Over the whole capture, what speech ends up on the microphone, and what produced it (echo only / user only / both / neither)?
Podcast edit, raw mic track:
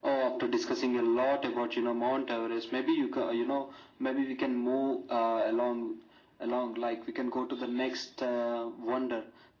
echo only